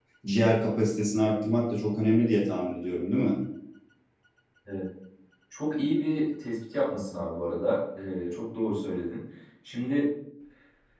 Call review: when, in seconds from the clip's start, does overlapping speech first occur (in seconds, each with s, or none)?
none